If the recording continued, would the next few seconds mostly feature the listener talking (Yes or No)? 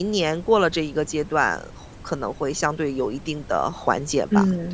Yes